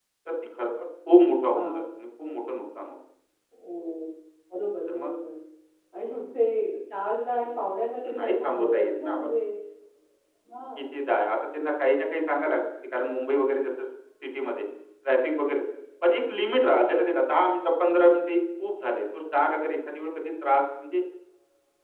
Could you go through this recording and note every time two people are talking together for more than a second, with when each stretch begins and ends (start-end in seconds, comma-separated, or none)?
8.1-9.3